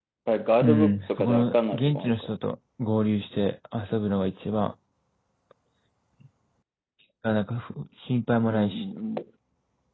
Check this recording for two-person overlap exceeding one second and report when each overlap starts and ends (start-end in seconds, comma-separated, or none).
0.6-2.3